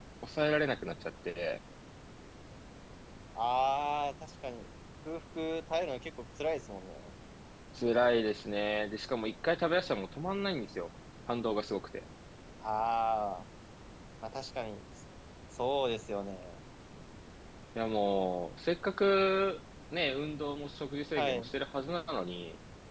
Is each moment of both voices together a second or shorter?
Yes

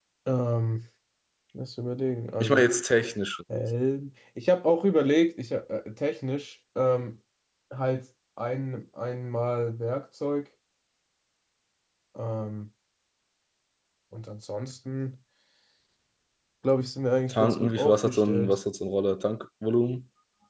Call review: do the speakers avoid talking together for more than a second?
No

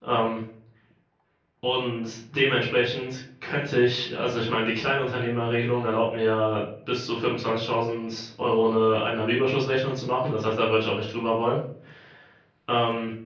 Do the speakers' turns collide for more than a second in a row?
No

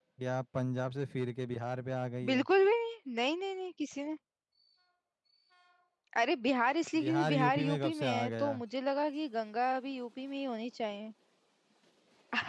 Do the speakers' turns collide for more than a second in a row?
Yes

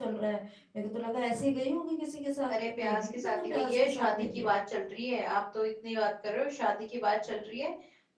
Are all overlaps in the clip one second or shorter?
No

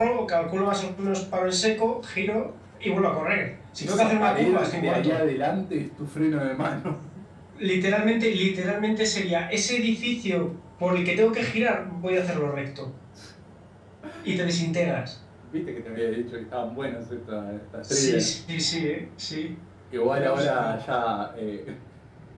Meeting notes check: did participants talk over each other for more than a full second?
Yes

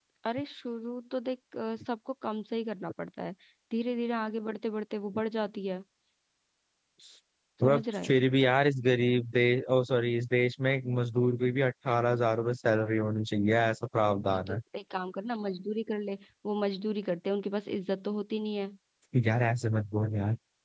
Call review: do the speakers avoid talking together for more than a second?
Yes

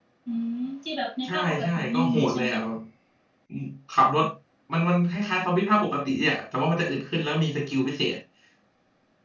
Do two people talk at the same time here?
Yes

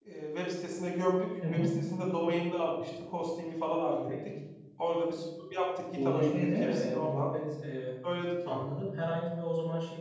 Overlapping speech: Yes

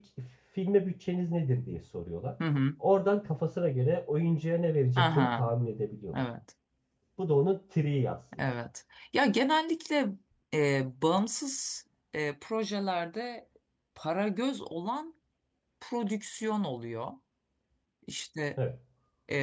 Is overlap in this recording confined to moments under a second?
Yes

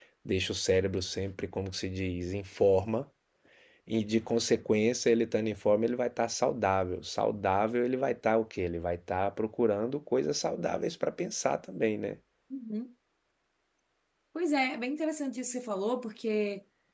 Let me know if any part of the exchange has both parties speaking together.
No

